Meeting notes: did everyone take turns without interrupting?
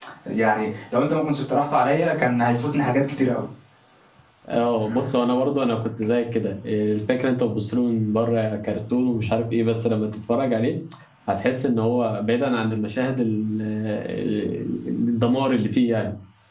Yes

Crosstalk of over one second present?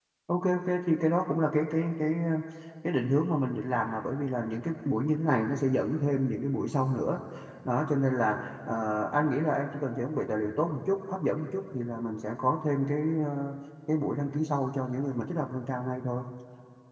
No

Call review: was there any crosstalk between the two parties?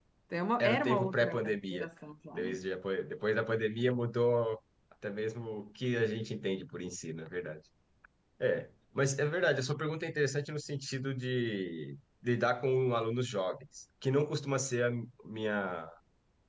Yes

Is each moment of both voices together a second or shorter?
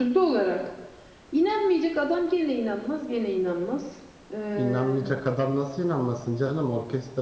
Yes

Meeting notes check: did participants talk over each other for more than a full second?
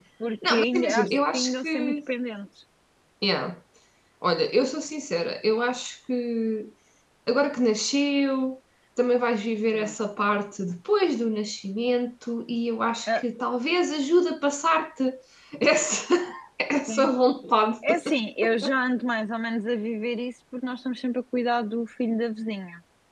Yes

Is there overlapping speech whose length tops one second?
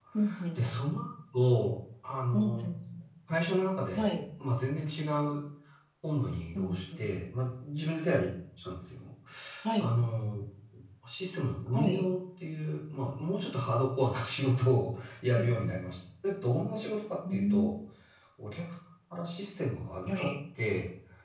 No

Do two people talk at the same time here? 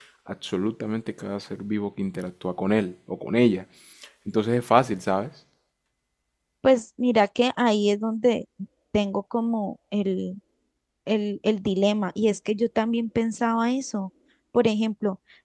No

